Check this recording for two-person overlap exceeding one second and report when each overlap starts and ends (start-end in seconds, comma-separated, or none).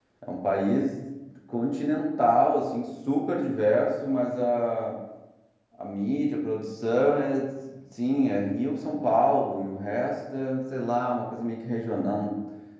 none